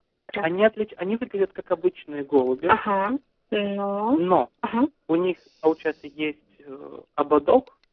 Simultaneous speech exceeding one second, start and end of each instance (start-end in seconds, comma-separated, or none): none